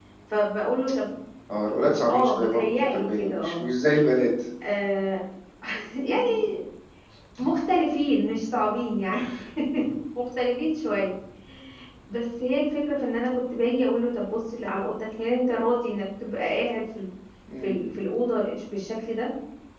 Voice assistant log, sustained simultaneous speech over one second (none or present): present